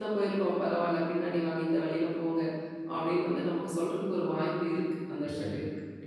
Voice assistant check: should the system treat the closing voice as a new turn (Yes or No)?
Yes